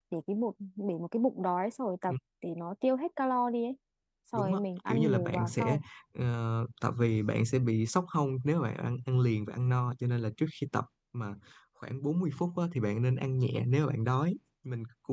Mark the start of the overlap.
4.3 s

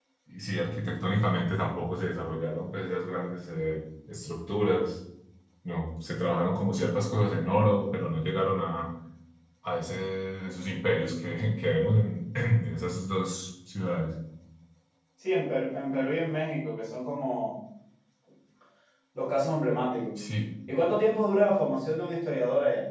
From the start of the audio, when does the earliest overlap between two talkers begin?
none

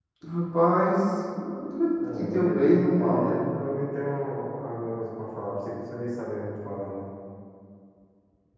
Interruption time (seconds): 2.0 s

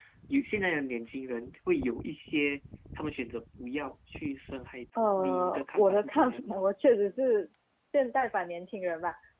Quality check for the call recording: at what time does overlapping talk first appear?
5.0 s

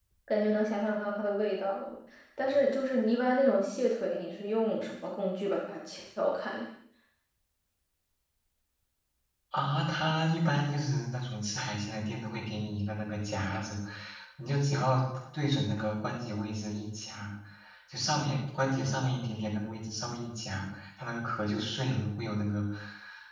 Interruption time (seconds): none

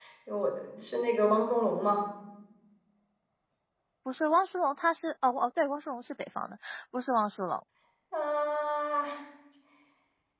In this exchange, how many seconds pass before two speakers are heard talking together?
none

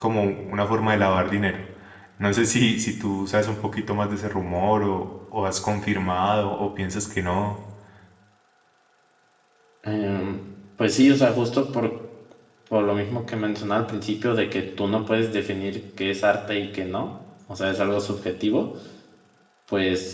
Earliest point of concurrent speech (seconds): none

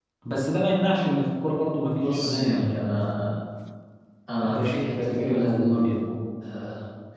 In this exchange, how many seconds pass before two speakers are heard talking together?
1.9 s

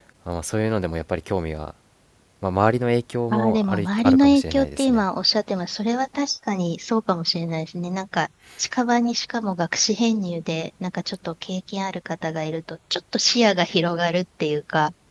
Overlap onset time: 3.3 s

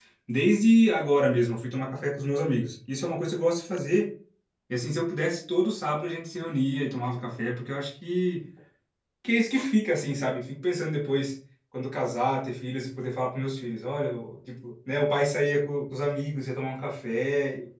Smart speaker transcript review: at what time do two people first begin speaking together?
none

